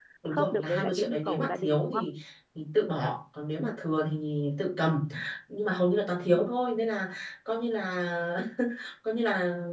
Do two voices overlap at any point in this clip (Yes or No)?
Yes